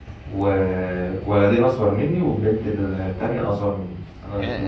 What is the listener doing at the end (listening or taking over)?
taking over